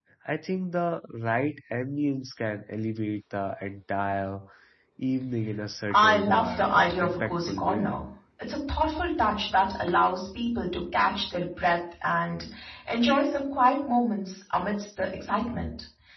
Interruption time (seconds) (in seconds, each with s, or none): 5.9 s